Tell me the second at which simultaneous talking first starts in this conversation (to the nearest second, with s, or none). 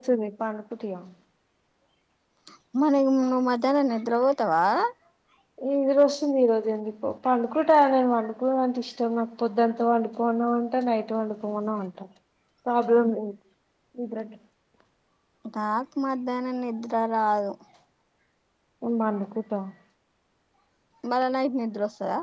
none